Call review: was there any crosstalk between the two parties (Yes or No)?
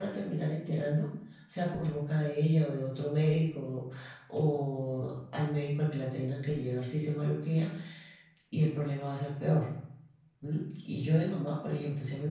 No